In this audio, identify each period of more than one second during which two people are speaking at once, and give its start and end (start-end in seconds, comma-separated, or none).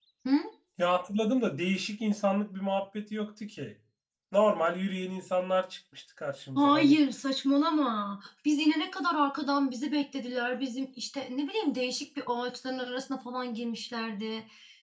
none